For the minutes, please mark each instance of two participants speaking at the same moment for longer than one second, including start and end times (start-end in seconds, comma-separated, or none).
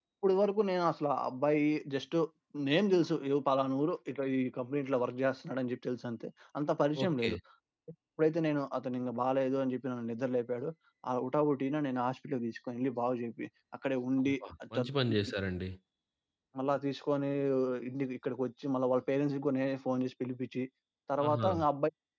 none